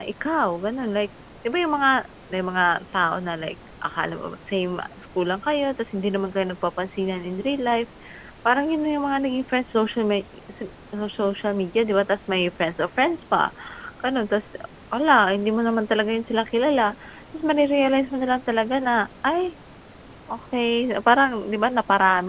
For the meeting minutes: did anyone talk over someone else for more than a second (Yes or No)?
No